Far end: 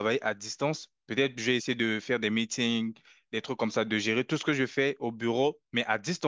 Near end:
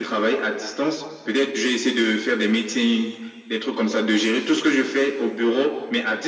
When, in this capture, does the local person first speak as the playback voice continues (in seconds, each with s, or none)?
none